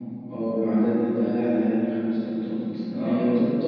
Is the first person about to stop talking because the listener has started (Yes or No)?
No